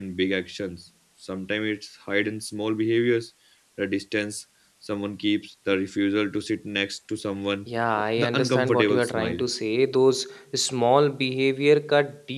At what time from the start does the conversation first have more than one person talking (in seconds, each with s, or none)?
8.2 s